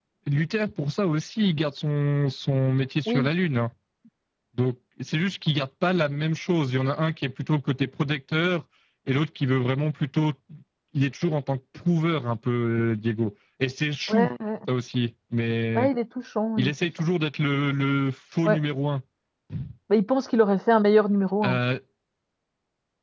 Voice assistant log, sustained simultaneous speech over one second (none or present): none